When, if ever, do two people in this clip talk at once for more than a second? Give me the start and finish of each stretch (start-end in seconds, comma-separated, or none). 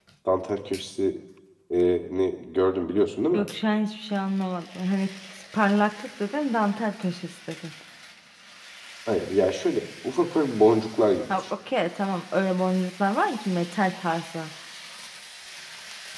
none